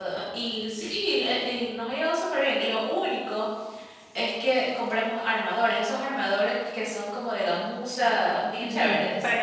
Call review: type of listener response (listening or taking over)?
taking over